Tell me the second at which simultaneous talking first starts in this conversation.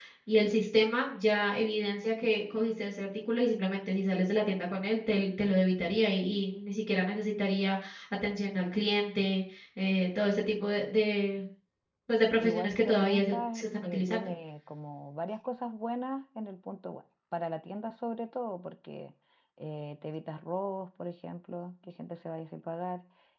12.4 s

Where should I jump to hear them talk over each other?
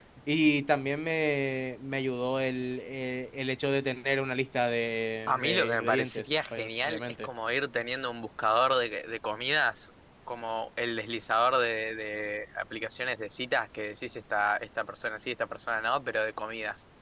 5.3 s

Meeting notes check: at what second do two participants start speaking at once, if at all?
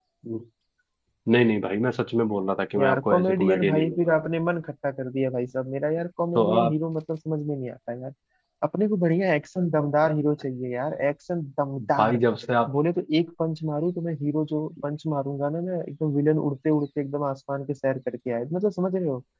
2.8 s

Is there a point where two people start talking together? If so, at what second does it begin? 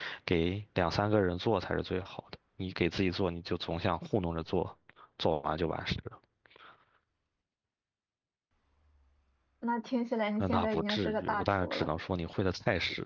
10.4 s

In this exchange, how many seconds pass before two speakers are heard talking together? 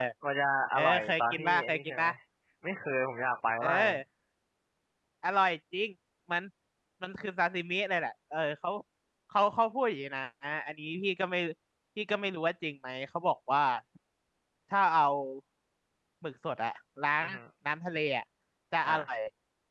0.8 s

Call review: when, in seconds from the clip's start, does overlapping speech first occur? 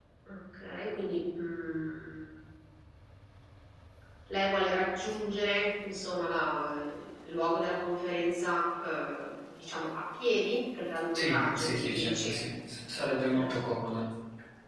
11.1 s

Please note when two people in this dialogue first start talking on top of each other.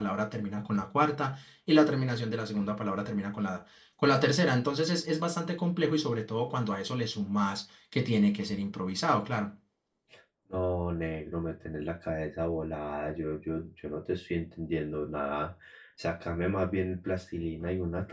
none

